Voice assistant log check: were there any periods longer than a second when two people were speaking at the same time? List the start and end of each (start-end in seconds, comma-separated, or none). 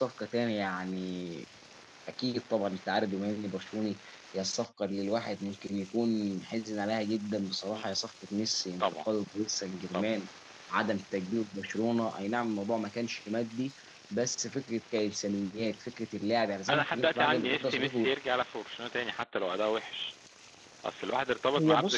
16.7-18.1